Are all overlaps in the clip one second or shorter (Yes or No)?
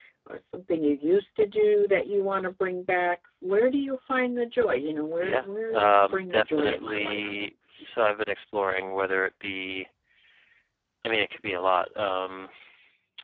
No